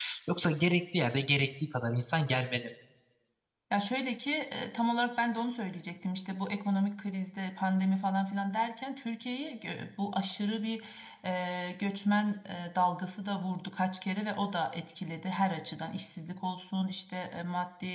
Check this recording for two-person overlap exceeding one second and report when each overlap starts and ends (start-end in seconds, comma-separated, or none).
none